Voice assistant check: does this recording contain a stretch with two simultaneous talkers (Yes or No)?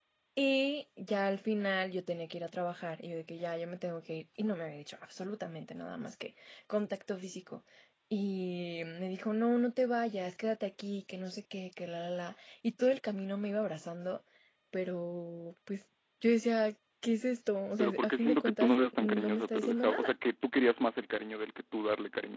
Yes